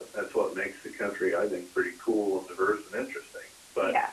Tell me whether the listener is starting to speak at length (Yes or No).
No